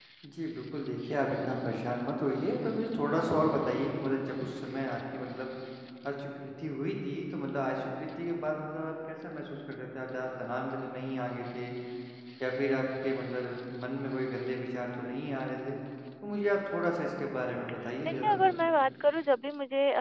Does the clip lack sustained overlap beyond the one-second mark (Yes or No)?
Yes